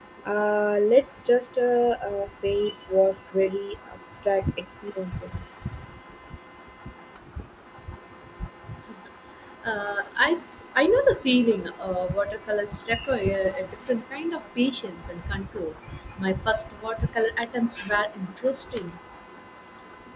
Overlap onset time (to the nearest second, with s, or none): none